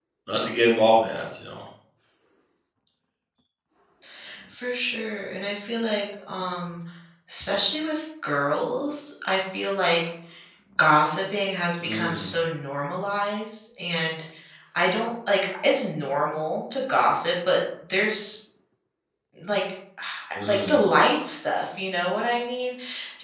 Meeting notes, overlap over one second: none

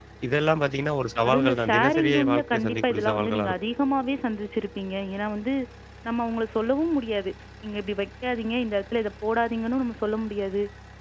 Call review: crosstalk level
present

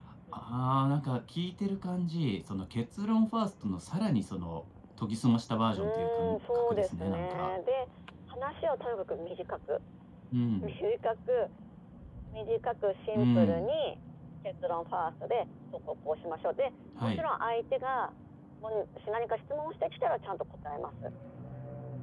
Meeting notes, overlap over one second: present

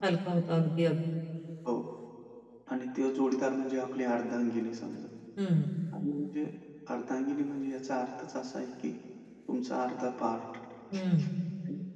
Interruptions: none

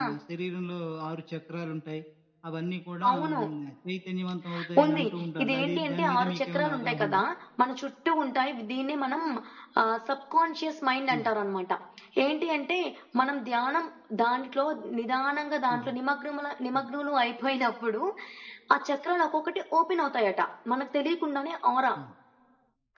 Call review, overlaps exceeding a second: present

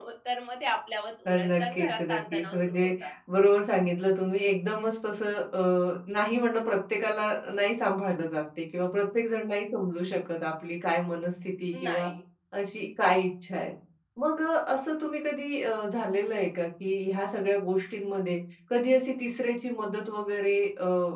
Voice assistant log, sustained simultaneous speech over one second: present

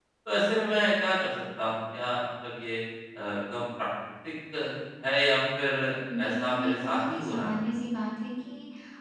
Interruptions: present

